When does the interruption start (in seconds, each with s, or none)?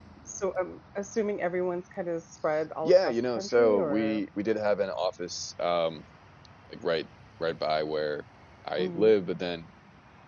2.8 s